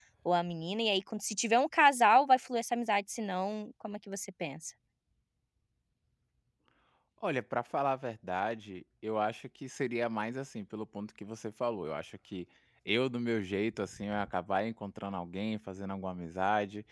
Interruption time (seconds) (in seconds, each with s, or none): none